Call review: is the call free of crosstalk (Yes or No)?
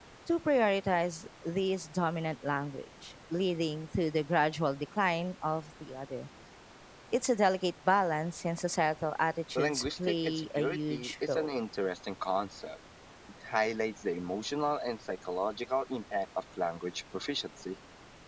No